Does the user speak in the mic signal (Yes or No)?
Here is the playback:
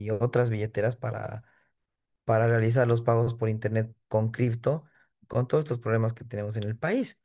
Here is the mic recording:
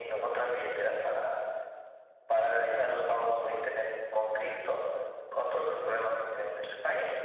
No